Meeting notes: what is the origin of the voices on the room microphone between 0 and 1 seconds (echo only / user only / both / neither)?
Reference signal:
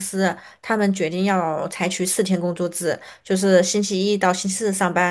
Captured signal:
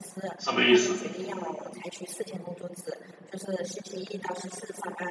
both